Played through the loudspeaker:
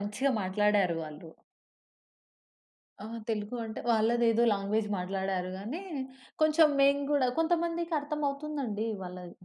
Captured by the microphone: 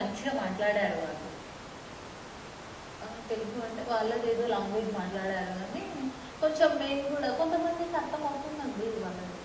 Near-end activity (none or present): none